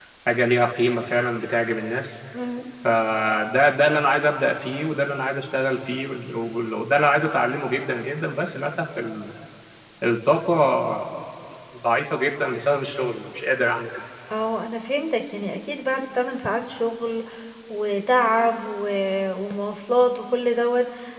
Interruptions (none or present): none